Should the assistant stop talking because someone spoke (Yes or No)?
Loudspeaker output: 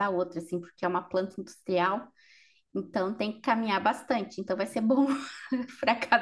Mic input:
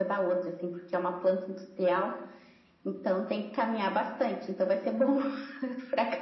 No